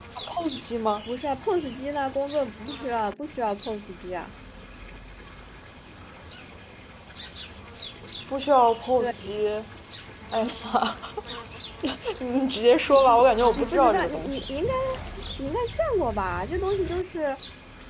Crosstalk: present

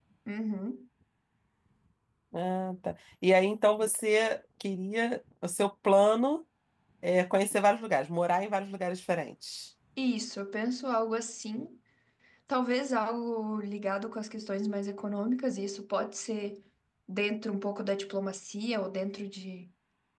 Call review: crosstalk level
none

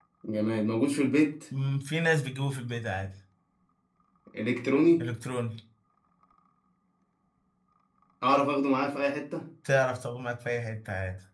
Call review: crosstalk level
none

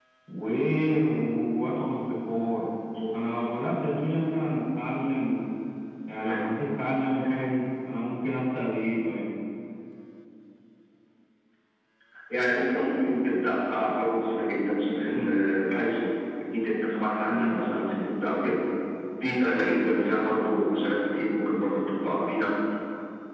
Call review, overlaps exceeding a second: none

